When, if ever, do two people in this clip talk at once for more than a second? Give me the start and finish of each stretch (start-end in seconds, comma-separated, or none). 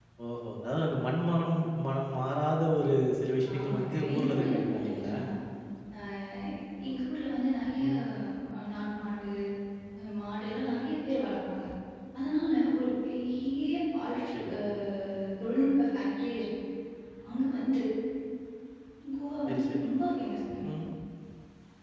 3.5-5.2